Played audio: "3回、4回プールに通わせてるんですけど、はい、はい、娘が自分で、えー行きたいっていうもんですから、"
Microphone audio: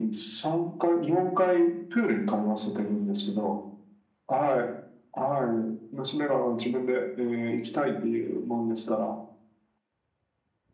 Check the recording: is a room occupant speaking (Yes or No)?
No